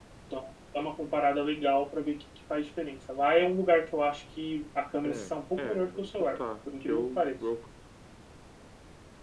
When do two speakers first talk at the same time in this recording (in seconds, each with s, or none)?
5.0 s